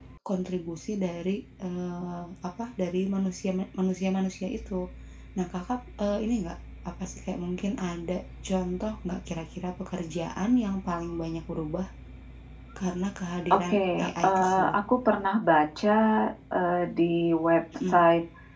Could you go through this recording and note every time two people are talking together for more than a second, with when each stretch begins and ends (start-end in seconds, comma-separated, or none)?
13.5-14.8